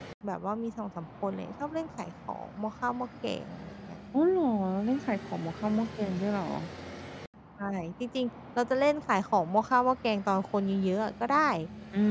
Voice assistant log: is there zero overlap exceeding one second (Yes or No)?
Yes